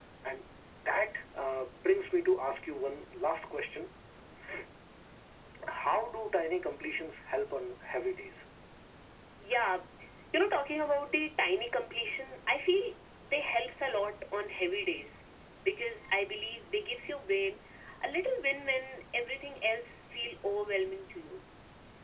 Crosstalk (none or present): none